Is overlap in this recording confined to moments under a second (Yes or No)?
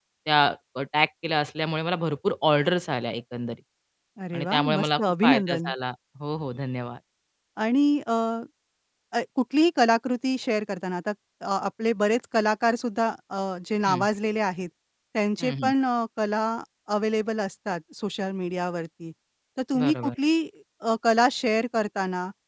No